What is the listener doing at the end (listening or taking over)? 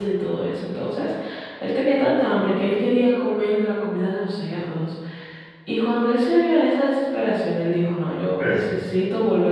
listening